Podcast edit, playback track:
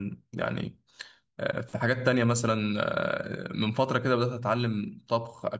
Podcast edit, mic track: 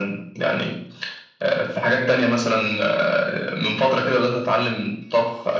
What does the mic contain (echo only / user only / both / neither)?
echo only